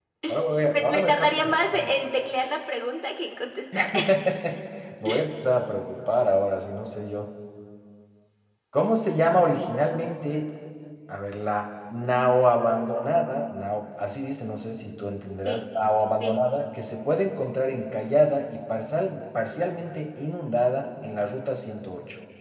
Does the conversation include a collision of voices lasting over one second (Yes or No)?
Yes